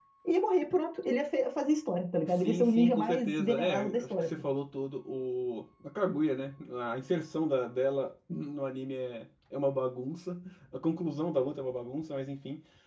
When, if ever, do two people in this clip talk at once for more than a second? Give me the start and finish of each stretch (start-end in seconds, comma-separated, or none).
2.3-4.3